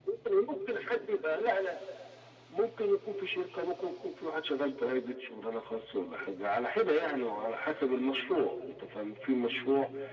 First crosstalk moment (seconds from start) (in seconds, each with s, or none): none